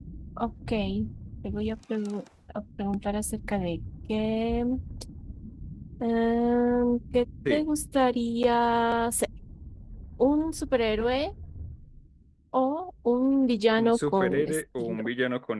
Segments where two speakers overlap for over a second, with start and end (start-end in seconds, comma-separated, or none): 13.8-15.1